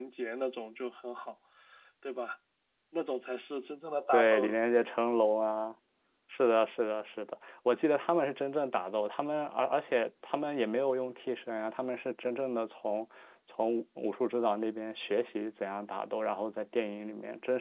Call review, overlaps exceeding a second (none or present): none